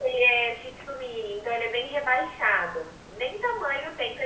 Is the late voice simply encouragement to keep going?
Yes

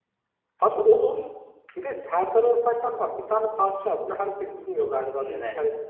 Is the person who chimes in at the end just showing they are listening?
Yes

